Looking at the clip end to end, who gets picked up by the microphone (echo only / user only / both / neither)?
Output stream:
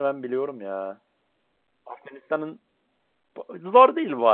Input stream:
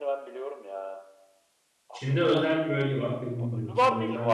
both